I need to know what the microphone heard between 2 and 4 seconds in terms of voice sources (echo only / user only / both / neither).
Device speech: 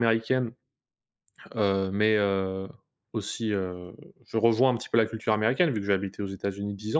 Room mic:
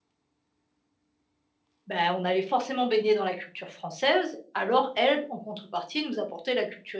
user only